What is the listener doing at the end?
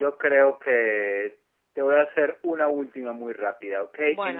listening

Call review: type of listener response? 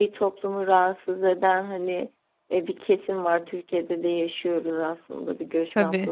listening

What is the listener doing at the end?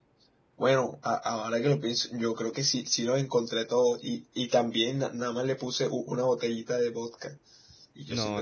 taking over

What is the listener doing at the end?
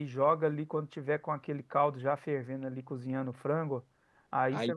listening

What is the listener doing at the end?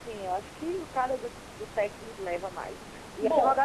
listening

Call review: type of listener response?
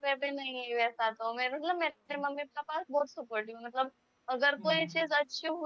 listening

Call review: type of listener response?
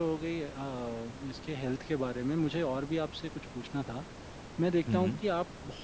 listening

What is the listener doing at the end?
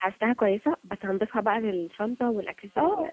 taking over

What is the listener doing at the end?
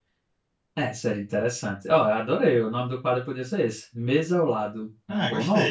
taking over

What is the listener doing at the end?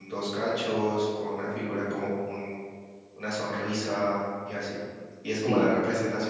listening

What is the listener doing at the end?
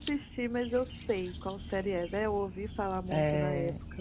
taking over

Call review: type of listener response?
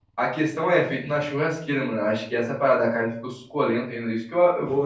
taking over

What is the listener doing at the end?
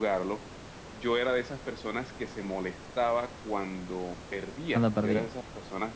listening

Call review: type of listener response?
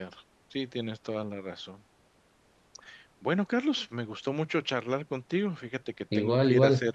listening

